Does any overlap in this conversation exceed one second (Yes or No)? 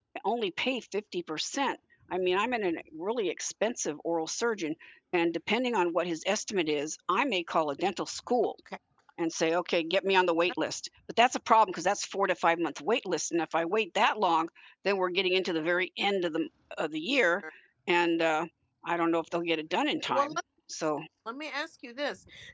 No